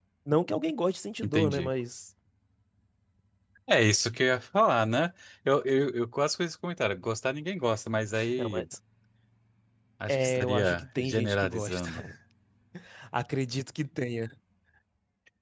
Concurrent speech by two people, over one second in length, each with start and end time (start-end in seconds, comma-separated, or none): 10.1-11.9